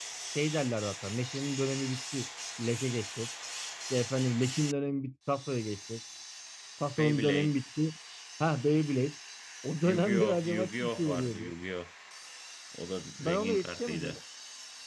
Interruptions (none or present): present